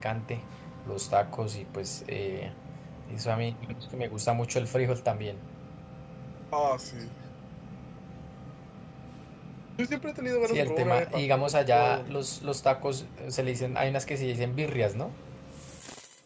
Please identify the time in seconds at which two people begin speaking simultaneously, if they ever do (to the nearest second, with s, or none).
10 s